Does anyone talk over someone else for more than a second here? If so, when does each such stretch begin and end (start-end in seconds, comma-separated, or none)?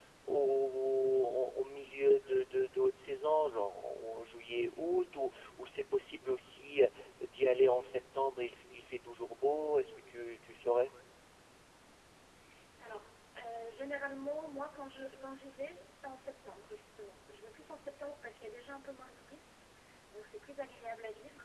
none